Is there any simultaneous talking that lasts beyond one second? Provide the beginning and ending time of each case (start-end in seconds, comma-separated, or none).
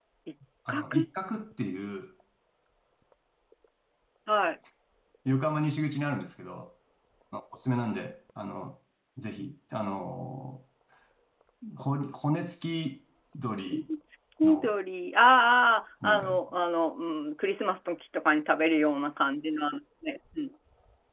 none